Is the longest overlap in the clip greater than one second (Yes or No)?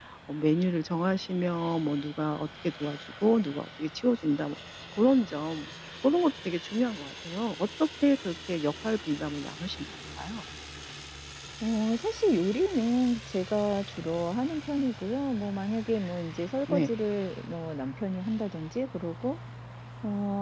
No